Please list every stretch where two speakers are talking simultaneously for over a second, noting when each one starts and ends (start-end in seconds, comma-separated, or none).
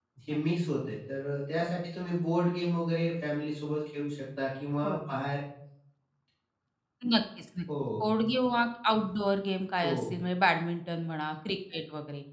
none